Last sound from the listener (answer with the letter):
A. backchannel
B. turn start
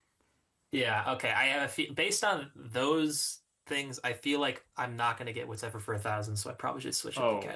B